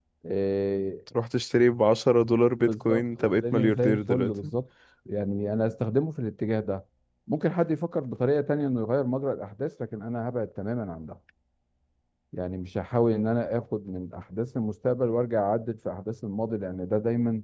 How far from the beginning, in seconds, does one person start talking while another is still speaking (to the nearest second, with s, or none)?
3 s